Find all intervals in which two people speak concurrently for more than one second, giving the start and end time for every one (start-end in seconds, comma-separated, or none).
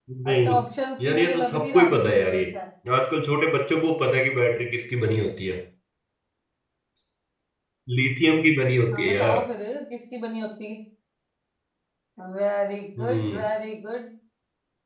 1.0-2.4